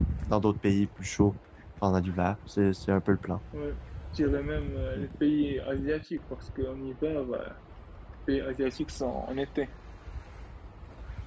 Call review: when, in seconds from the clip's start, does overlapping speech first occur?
none

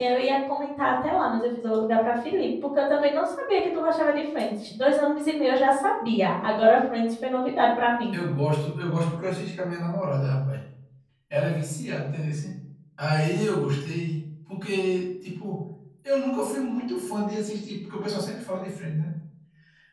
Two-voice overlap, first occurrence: none

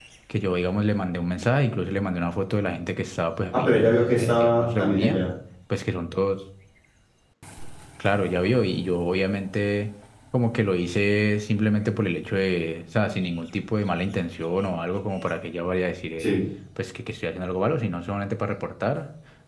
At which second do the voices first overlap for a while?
3.5 s

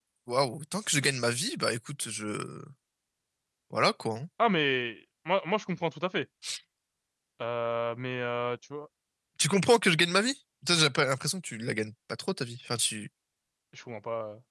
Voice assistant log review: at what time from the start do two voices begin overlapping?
none

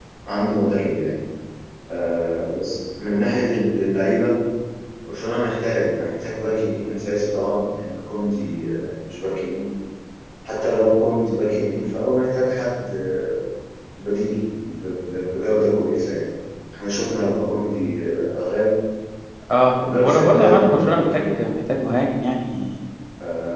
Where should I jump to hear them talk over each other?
19.9 s

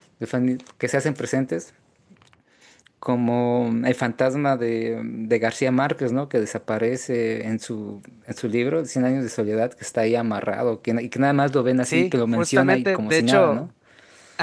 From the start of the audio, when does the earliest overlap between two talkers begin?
11.8 s

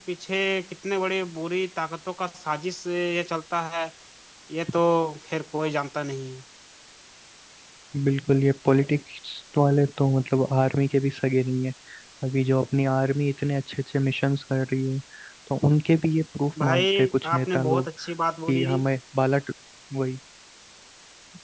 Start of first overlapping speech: 16.6 s

